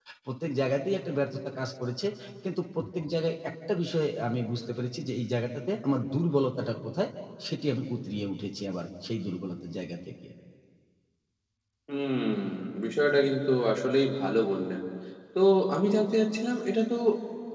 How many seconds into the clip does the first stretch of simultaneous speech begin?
none

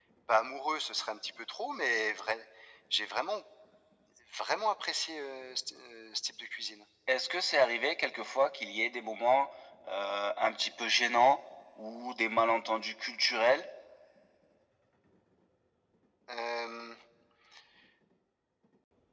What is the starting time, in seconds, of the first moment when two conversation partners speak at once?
none

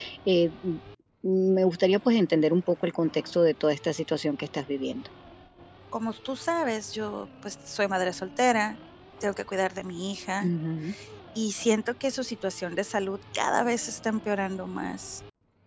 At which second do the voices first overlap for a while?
none

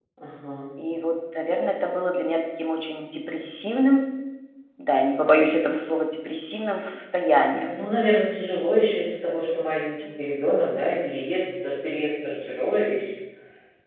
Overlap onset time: none

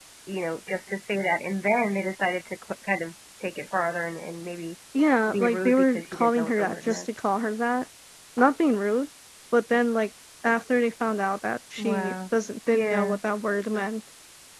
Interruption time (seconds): 5.3 s

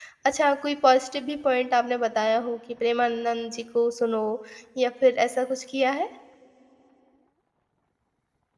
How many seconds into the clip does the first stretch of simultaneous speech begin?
none

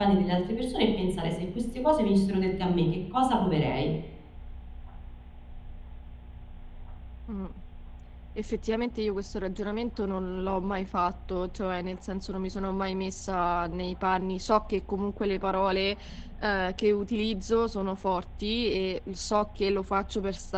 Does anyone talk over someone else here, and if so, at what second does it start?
none

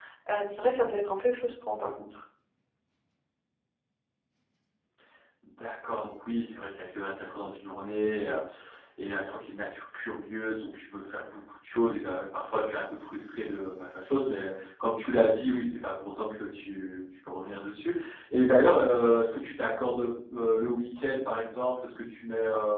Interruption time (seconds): none

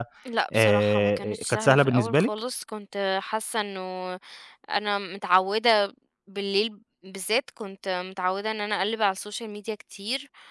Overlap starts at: 0.5 s

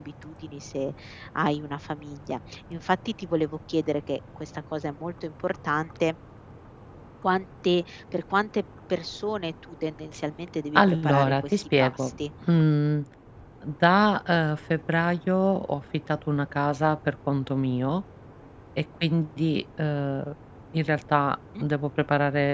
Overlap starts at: 10.8 s

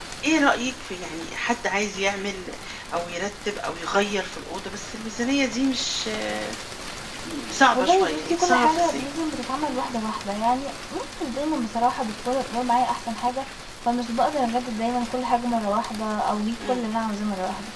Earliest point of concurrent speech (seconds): 7.7 s

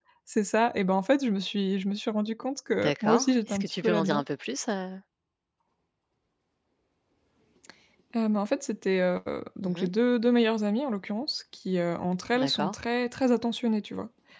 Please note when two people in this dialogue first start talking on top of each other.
2.8 s

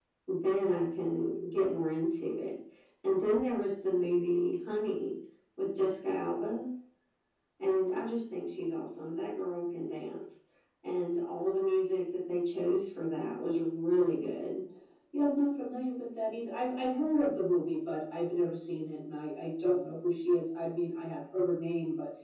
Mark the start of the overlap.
none

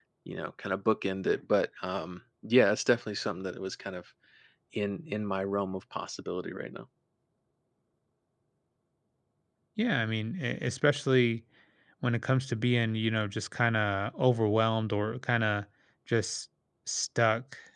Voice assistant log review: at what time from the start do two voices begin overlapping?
none

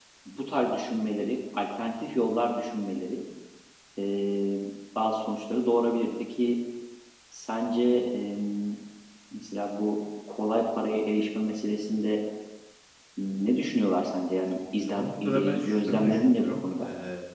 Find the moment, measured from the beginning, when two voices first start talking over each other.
14.9 s

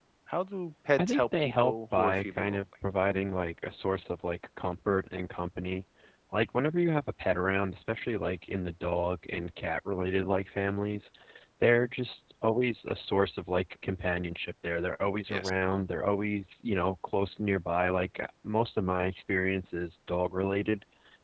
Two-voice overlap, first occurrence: 1.0 s

